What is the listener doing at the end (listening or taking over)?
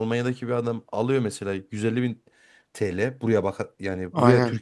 listening